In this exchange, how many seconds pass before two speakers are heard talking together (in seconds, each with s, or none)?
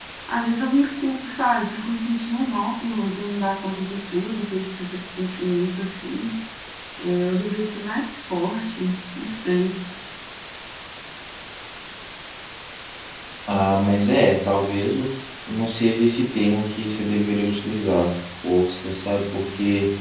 none